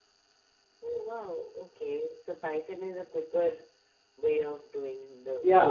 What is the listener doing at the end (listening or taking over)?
taking over